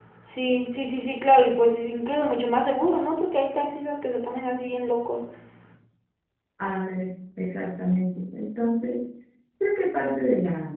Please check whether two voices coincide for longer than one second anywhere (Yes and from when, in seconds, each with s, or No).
No